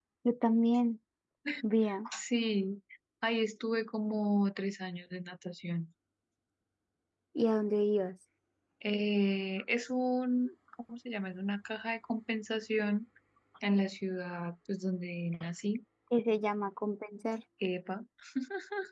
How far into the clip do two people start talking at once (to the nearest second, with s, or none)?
none